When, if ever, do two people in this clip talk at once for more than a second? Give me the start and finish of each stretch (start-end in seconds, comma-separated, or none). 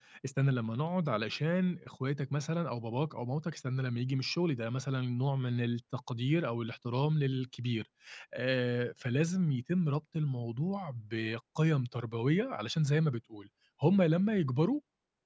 none